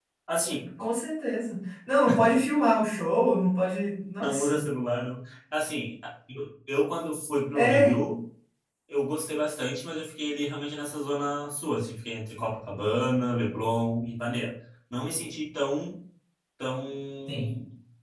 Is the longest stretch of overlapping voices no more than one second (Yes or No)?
Yes